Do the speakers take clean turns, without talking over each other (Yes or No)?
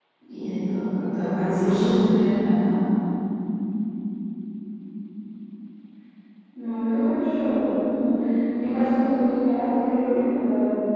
Yes